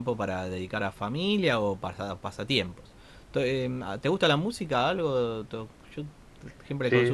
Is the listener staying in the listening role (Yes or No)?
No